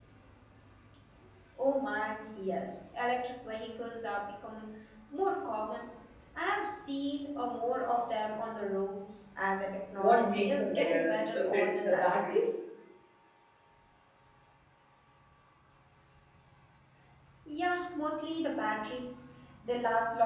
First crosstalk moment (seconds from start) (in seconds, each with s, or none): 9.9 s